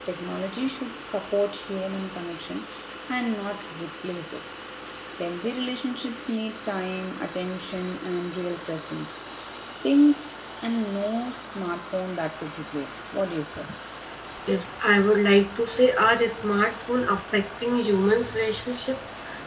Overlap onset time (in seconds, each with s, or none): none